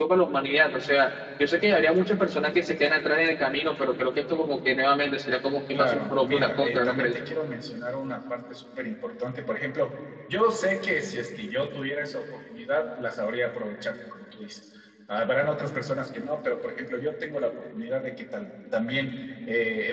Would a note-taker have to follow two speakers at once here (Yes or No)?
Yes